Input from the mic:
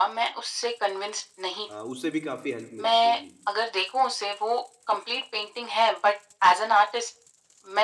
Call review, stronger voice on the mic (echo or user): echo